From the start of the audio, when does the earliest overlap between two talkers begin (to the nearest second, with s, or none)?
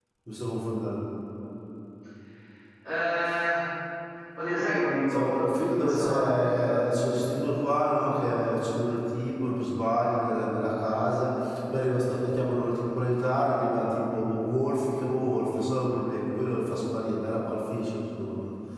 5 s